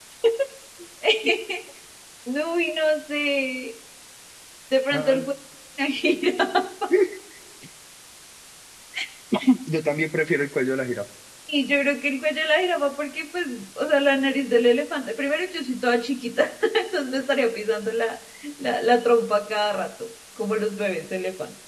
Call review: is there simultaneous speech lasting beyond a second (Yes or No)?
No